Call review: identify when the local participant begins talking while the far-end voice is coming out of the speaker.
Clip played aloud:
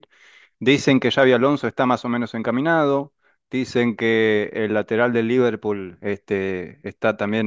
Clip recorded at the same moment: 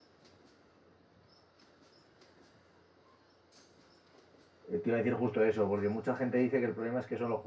4.7 s

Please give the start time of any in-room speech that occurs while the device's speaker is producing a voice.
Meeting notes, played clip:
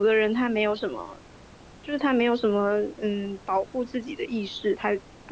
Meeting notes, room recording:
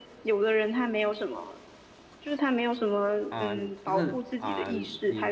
3.3 s

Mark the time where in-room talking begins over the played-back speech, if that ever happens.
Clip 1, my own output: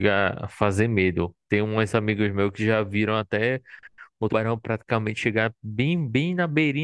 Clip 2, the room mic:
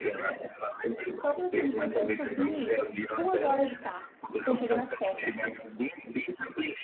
1.1 s

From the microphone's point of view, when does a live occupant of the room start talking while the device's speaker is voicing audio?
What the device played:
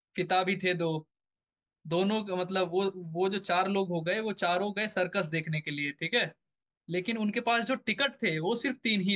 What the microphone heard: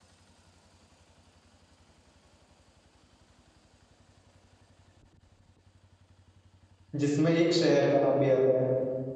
7.0 s

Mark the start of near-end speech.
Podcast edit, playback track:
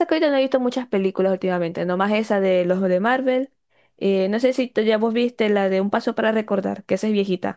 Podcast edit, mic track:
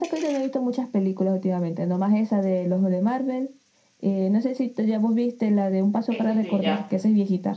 6.1 s

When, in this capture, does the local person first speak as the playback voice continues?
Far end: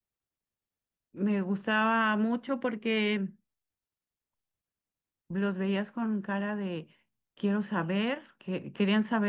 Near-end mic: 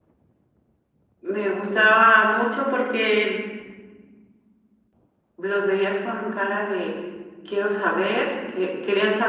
none

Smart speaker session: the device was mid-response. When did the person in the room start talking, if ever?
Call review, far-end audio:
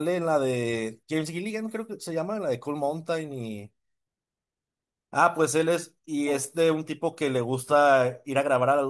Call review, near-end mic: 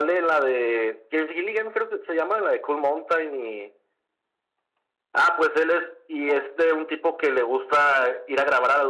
none

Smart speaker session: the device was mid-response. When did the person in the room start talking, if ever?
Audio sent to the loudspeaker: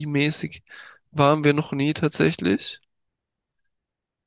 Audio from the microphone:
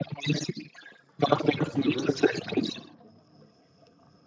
1.2 s

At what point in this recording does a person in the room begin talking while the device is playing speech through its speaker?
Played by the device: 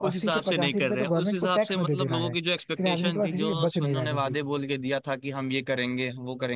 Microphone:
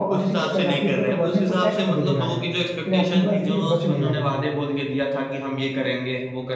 none

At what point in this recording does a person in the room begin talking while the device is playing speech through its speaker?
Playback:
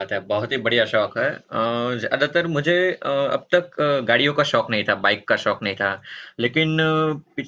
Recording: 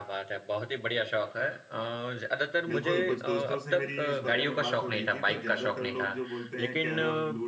2.7 s

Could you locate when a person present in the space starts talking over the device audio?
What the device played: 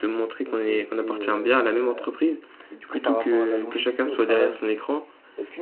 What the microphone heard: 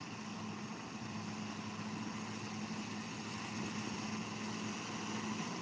none

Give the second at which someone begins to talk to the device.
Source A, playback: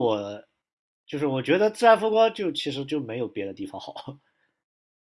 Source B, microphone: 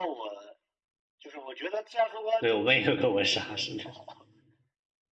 2.4 s

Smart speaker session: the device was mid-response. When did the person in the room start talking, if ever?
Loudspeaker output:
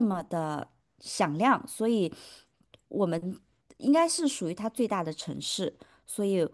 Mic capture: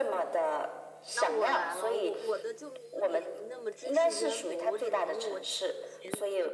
1.1 s

